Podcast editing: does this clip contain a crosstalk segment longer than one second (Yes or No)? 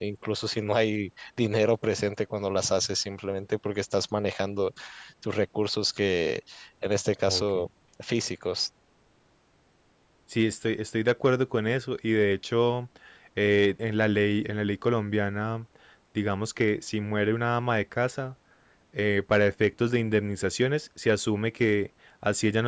No